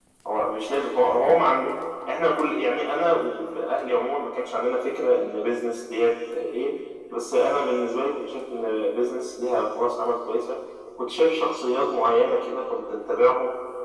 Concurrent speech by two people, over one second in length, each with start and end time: none

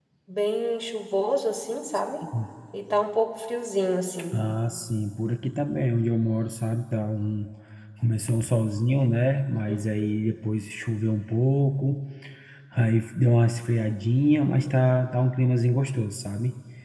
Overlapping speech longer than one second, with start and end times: none

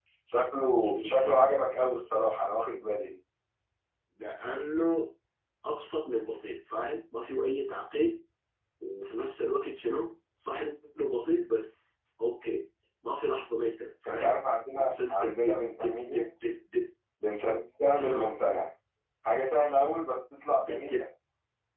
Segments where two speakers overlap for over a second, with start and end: 14.8-16.2

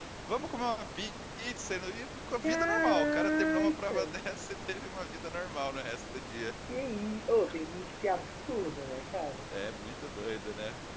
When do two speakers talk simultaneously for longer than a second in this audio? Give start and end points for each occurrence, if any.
2.4-4.0

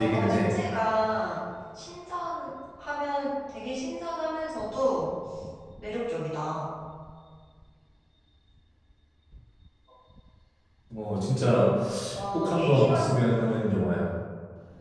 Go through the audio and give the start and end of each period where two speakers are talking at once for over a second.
12.3-13.9

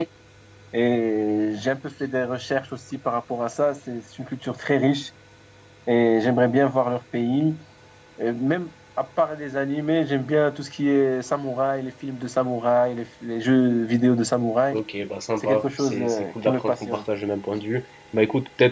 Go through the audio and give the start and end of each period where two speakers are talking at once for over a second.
15.4-17.0

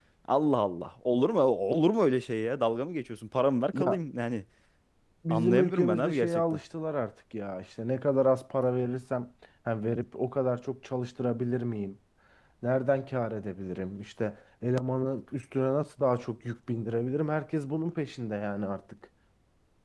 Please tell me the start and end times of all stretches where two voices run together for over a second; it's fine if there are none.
5.3-6.6

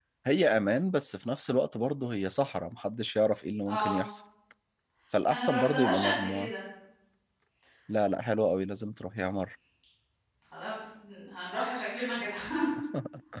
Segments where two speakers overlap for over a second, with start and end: 5.3-6.5

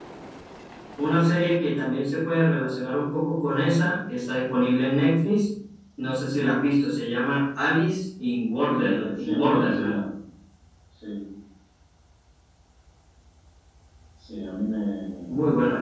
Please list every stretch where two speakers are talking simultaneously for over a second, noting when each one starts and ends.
8.7-10.0

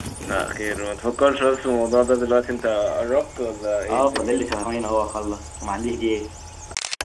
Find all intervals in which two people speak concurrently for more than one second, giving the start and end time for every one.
none

